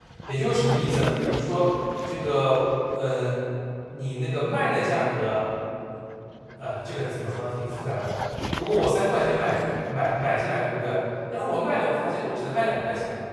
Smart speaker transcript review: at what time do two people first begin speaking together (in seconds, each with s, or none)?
none